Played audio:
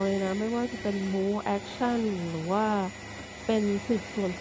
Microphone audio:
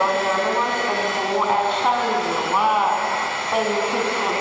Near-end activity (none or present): none